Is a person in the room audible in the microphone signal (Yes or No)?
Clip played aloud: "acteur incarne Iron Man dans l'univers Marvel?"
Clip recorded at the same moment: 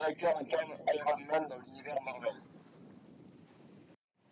No